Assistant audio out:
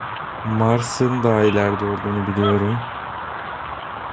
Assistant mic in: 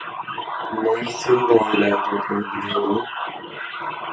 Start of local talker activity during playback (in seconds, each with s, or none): none